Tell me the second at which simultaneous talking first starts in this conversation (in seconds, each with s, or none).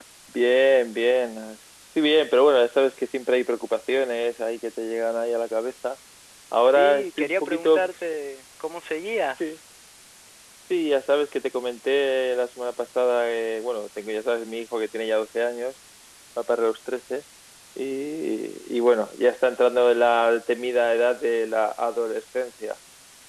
6.6 s